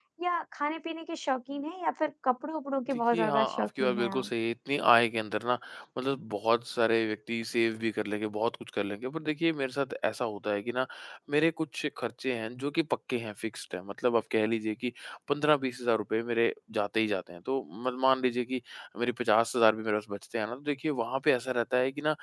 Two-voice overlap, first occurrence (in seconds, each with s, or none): 2.9 s